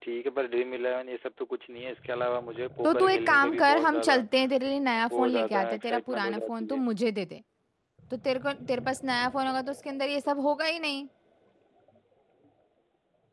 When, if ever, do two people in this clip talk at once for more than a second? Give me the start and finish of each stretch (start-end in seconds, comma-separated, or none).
2.8-4.2, 5.2-6.8